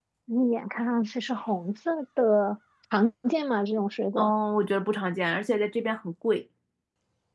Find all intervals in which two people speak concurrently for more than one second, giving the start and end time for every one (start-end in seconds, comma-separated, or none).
none